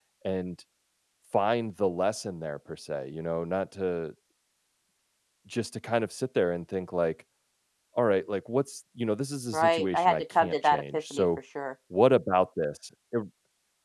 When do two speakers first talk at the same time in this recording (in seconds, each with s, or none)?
9.5 s